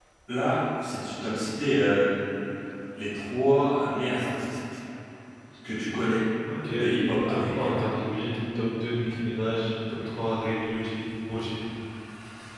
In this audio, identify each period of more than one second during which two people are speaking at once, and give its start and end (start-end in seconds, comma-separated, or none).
none